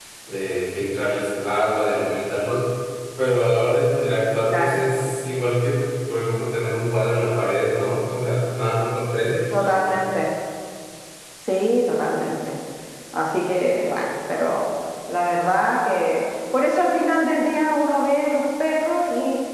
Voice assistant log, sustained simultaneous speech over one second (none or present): none